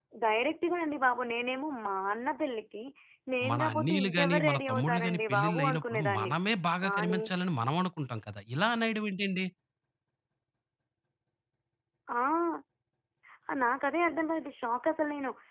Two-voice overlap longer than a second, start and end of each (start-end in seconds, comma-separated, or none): 3.5-6.3